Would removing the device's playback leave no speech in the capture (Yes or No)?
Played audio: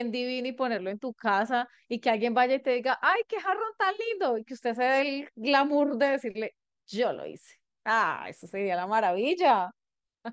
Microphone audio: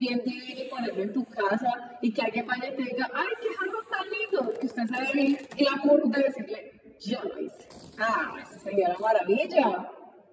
Yes